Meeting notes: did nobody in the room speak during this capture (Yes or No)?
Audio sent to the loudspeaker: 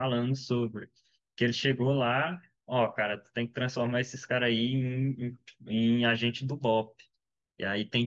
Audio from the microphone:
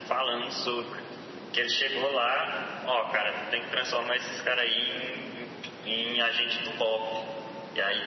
Yes